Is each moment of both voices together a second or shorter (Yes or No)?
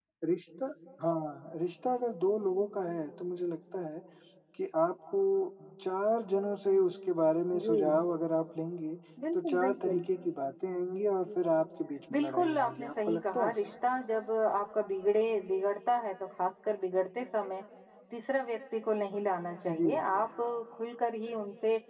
No